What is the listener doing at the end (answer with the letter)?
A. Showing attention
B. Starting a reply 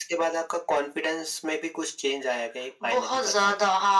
B